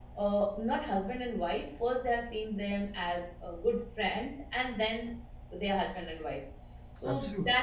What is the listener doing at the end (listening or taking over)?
listening